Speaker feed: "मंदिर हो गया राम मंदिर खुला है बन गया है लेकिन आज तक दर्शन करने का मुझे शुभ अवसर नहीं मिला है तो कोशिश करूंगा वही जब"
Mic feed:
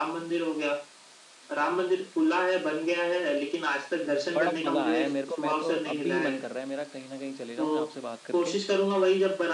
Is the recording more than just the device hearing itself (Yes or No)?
Yes